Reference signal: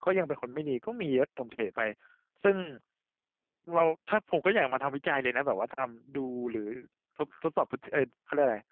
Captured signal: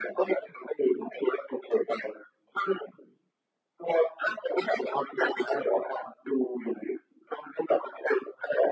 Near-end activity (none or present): none